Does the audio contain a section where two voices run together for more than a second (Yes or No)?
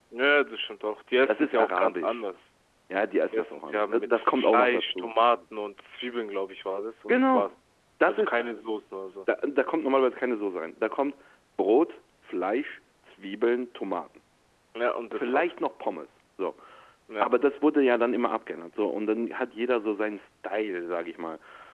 Yes